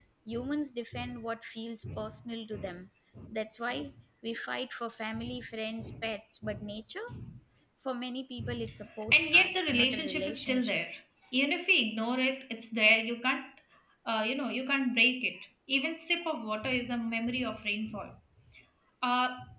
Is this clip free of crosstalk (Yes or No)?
No